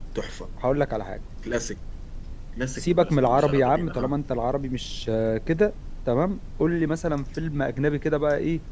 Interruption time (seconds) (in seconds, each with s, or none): 2.8 s